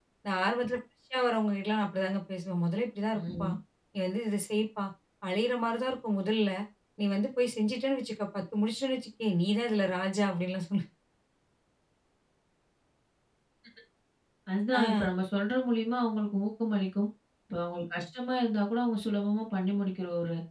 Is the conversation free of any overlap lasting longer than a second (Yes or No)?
Yes